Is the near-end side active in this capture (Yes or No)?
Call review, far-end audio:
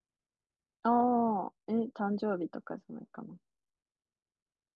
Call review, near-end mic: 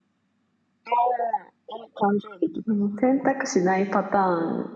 Yes